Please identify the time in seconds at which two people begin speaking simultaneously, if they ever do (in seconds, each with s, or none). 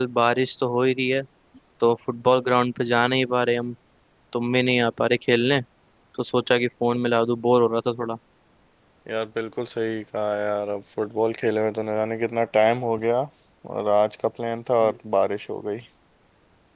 none